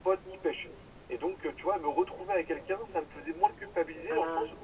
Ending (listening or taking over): listening